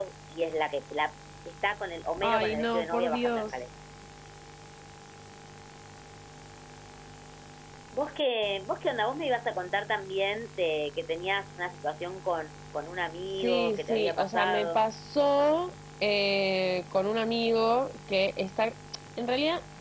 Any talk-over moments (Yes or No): Yes